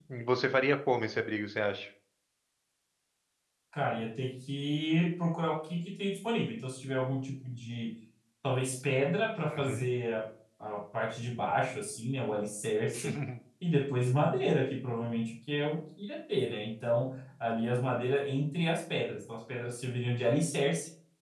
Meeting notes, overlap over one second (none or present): none